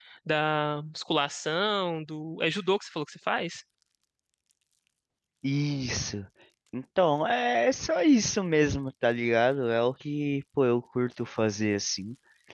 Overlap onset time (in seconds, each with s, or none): none